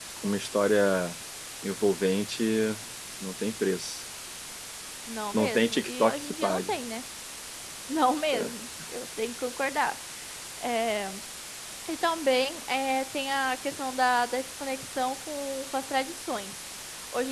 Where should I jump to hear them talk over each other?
5 s

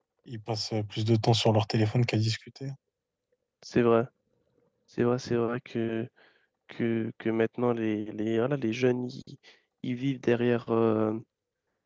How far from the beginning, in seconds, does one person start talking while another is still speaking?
none

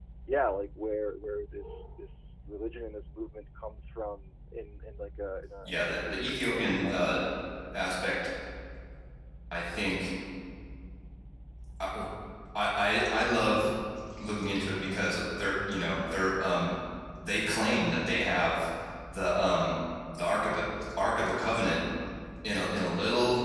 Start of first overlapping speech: 6 s

